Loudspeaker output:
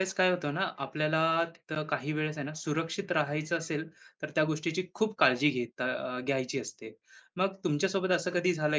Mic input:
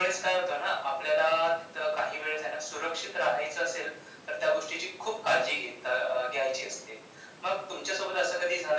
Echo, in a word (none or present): present